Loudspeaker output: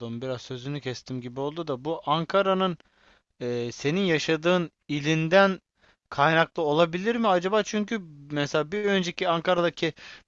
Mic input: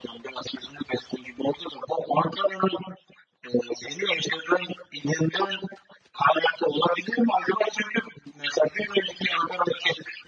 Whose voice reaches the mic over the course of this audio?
echo only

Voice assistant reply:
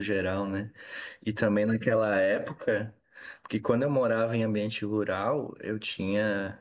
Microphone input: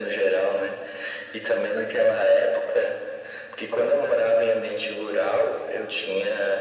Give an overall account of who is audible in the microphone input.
echo only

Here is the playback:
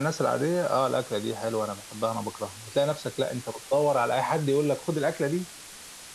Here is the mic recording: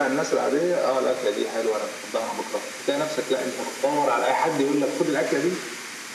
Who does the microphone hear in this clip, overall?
echo only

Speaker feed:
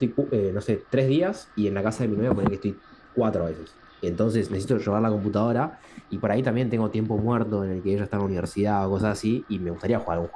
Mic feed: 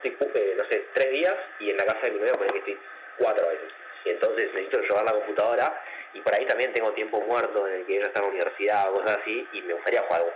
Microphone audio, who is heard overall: echo only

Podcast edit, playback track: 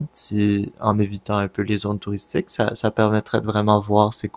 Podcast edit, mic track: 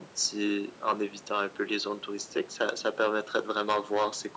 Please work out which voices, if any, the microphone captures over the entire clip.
echo only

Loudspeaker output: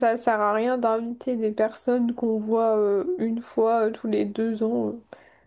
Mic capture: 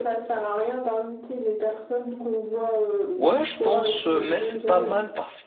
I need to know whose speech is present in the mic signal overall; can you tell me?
both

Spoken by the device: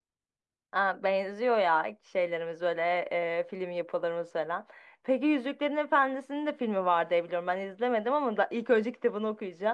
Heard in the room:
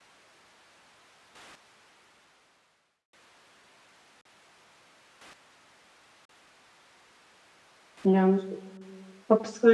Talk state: user only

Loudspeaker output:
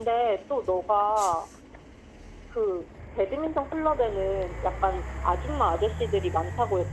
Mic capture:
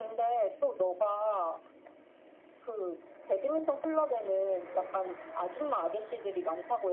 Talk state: echo only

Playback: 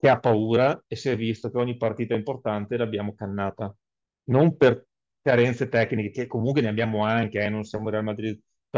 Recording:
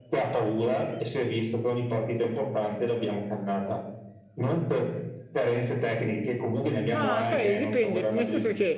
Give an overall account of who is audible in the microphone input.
both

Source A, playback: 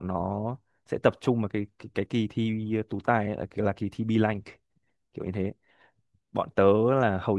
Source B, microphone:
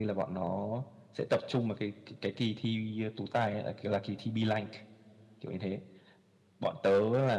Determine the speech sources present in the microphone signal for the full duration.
echo only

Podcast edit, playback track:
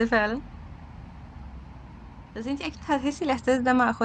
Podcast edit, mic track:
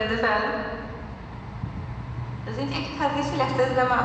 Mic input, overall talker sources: echo only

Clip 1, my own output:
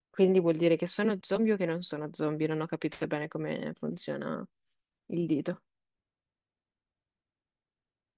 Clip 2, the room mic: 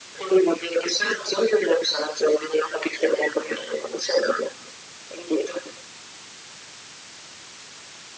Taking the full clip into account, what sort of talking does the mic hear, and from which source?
echo only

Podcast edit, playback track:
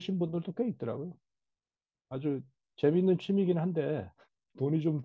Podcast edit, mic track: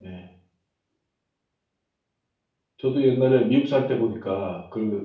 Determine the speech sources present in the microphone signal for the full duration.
user only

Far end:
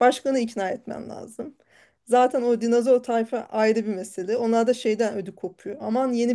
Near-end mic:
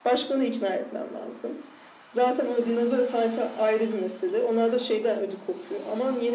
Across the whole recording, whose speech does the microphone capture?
echo only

